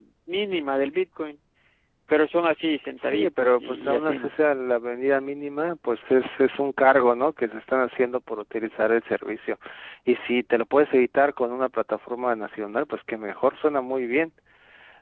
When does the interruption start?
3.0 s

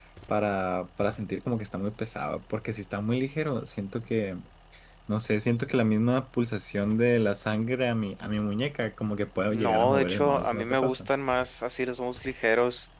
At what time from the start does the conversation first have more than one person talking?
9.5 s

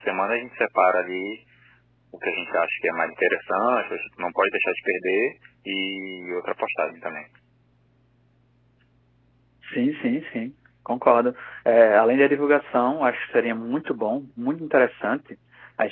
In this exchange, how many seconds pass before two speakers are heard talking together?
none

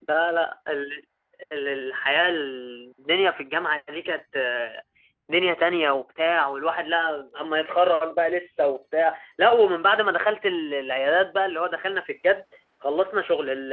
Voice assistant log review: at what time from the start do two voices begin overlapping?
none

